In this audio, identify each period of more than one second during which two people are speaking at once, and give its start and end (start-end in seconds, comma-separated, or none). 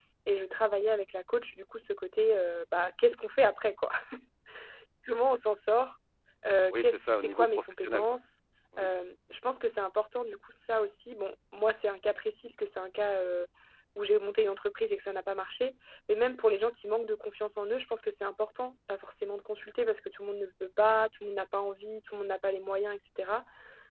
6.7-8.0